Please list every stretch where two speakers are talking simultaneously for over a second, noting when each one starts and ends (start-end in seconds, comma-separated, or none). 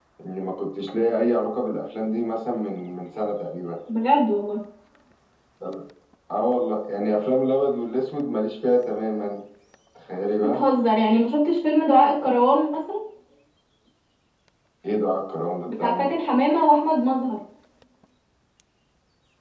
none